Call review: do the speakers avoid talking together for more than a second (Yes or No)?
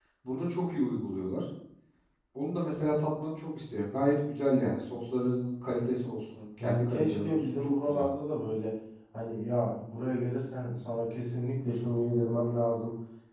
No